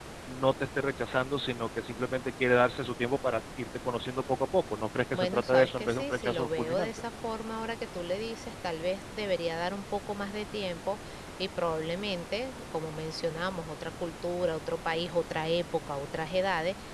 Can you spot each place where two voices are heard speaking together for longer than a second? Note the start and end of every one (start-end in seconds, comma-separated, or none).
5.1-6.9